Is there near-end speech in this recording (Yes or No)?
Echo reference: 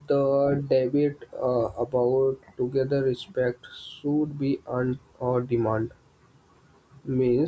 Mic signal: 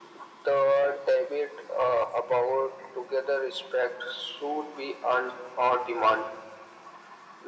No